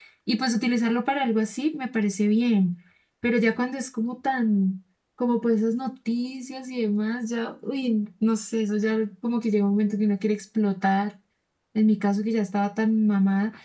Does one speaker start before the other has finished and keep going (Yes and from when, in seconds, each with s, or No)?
No